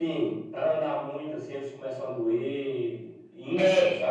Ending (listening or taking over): taking over